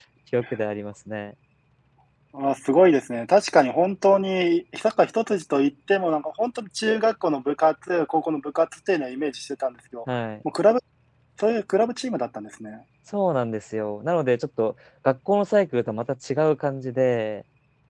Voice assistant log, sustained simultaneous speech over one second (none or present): none